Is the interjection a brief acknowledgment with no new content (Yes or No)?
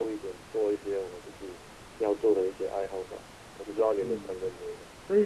No